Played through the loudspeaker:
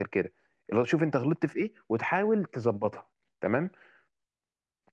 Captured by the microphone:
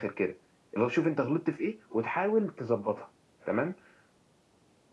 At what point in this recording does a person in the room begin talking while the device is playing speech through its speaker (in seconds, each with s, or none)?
none